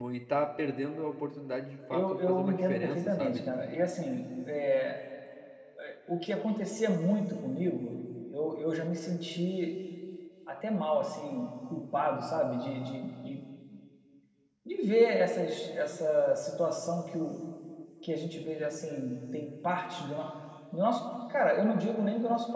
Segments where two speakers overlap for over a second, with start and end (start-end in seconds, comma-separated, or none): 1.9-3.4